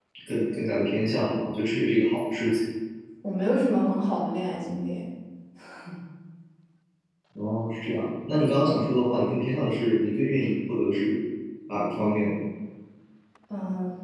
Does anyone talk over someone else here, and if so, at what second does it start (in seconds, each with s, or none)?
none